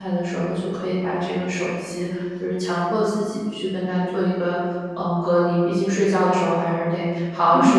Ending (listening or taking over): taking over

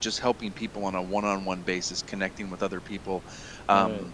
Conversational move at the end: listening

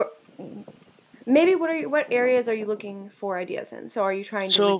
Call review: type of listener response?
listening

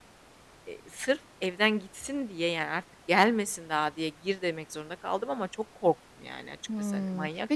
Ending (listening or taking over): taking over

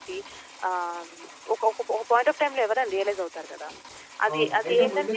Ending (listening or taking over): taking over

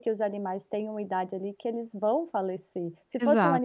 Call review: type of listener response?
listening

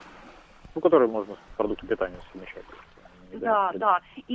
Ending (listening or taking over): taking over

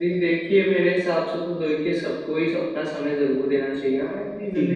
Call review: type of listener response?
listening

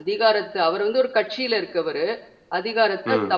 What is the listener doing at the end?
listening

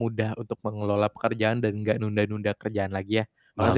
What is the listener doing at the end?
taking over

